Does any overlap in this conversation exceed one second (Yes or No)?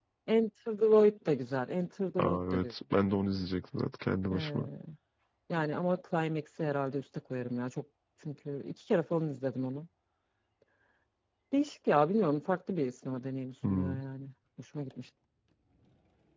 No